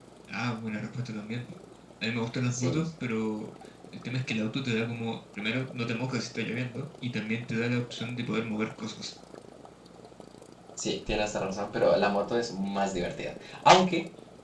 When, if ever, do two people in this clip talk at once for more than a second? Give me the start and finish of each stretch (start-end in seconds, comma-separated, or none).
none